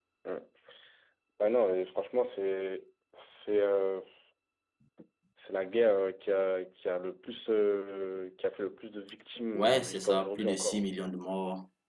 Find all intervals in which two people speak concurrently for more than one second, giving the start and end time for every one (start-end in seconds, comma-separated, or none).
9.6-10.8